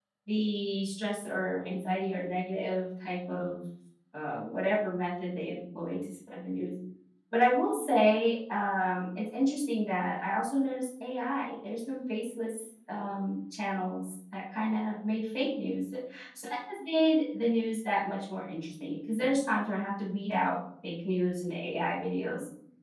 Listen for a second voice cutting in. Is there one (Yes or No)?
No